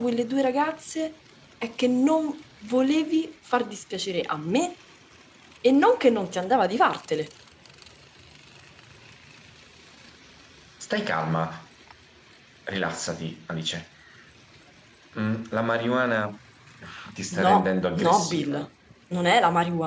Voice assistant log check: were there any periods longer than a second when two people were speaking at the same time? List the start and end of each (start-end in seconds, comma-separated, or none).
17.4-18.6